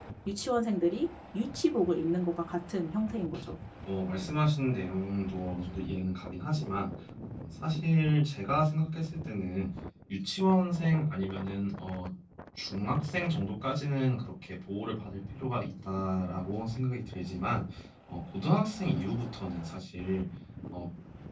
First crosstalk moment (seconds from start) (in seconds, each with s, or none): none